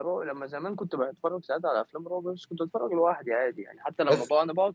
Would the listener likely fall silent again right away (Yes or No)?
Yes